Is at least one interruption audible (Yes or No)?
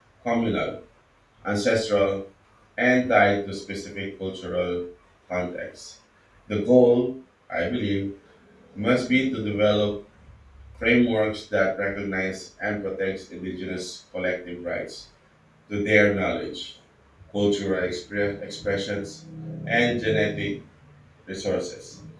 No